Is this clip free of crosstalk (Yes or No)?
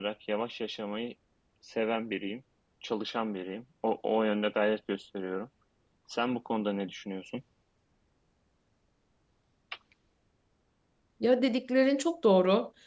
Yes